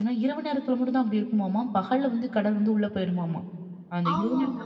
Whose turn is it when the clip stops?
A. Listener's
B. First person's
A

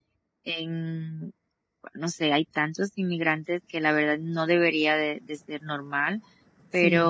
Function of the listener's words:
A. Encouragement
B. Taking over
A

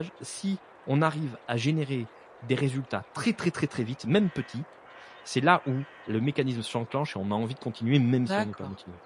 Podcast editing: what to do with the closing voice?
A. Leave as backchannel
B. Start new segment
B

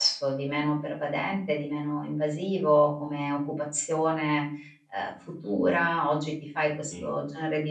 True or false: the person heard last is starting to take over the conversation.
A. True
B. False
B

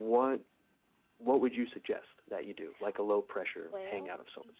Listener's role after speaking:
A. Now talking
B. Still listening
A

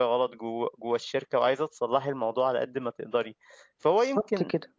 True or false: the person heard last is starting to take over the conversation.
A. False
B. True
A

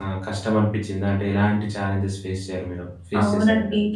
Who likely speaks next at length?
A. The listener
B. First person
A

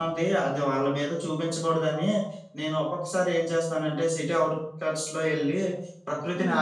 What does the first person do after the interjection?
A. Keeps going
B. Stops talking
A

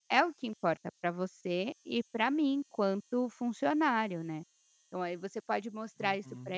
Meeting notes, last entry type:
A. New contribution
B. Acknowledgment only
B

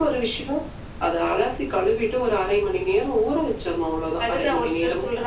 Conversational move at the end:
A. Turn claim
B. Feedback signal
A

